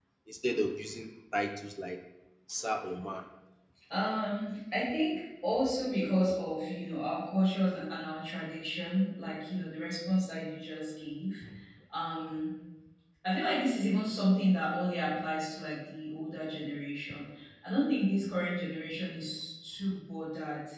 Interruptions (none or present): none